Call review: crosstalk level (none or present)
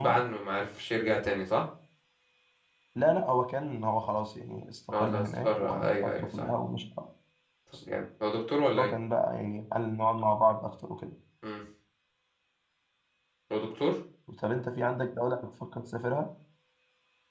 present